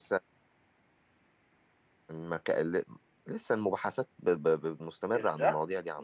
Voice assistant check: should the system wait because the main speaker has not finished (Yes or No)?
No